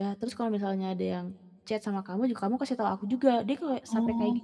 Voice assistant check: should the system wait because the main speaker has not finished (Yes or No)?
No